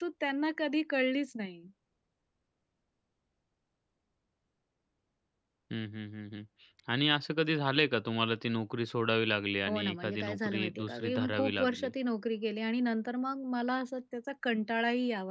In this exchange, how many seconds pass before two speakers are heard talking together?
10 s

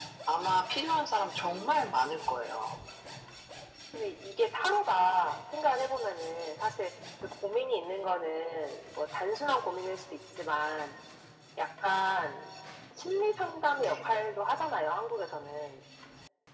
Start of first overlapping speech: 1 s

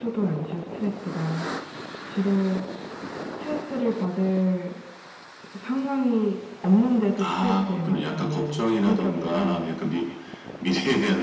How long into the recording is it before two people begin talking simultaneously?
7 s

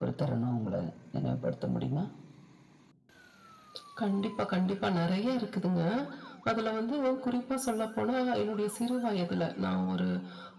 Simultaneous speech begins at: none

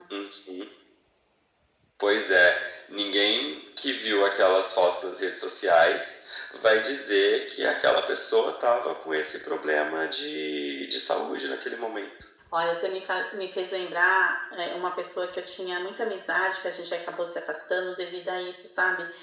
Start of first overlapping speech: none

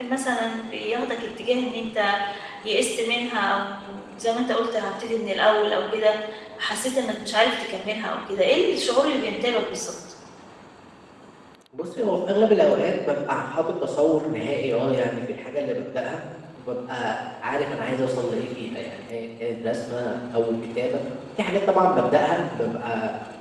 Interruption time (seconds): none

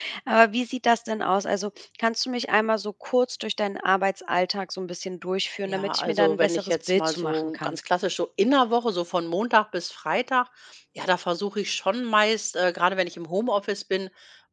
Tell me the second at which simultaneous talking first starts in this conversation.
6 s

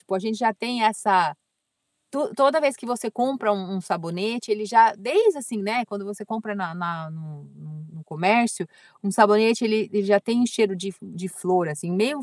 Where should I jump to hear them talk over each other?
none

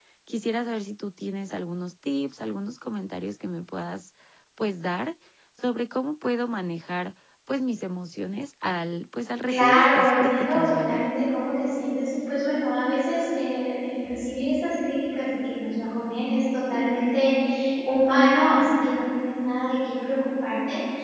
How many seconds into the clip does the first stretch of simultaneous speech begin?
9 s

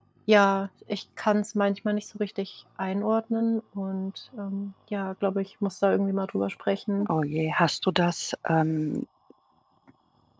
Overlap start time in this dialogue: none

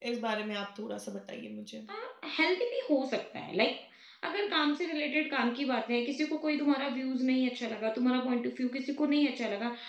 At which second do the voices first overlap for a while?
none

